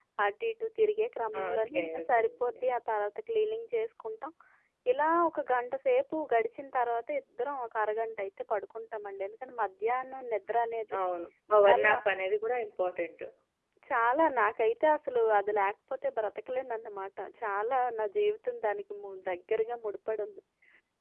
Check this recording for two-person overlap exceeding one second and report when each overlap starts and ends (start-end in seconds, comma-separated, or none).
1.4-2.6